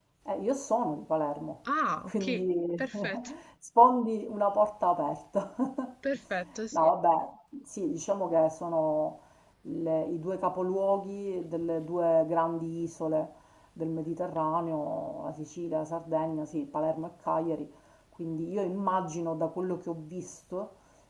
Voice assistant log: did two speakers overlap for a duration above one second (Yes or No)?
No